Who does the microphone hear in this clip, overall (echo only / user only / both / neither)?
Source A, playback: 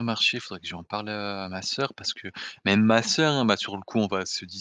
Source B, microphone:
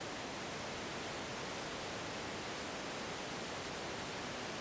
neither